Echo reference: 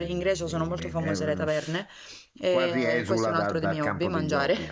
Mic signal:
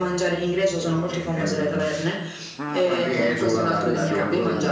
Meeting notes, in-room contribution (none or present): present